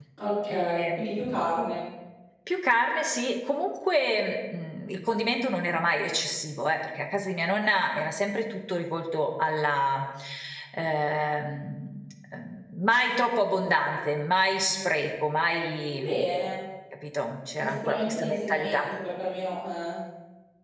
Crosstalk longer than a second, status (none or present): present